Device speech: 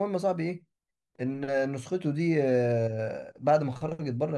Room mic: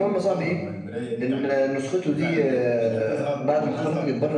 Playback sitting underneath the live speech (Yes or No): No